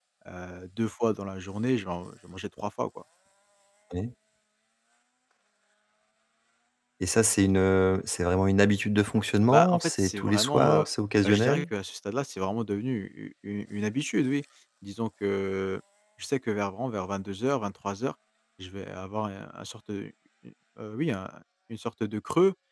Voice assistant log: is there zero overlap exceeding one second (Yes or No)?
No